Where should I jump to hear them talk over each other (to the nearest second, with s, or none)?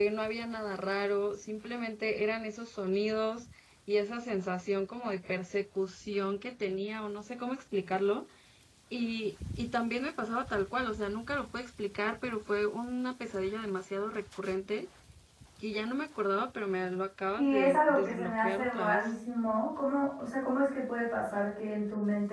17 s